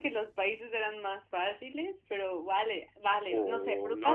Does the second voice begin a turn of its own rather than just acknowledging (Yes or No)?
Yes